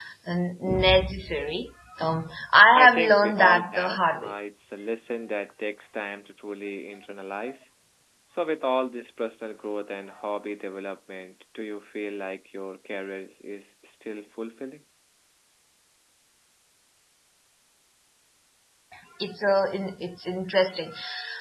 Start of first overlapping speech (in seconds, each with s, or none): 2.7 s